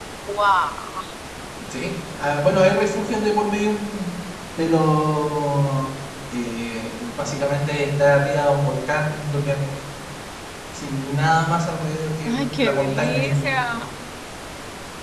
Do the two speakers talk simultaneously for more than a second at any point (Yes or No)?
Yes